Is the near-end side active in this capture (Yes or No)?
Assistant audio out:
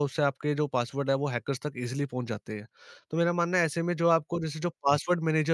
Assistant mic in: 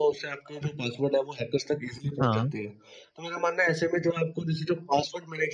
Yes